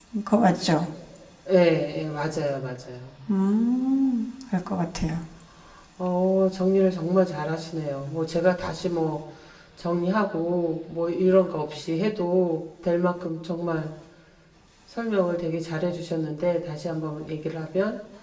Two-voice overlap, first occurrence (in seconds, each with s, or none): none